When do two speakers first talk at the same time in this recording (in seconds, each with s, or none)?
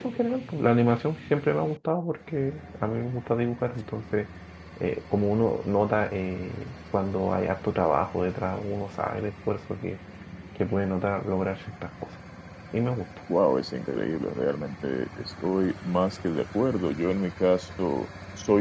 none